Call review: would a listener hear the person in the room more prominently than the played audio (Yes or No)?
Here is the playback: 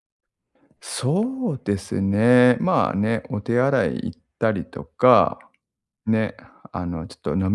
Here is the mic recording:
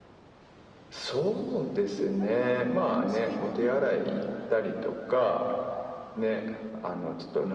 No